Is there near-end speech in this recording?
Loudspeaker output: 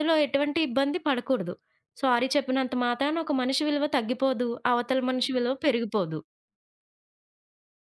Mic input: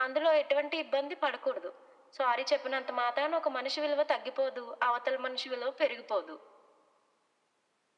No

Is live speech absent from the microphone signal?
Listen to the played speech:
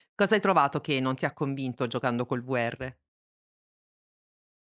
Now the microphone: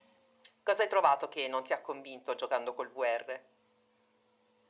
Yes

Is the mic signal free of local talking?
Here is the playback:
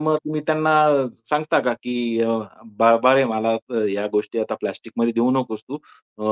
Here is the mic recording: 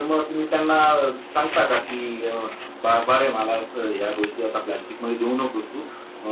Yes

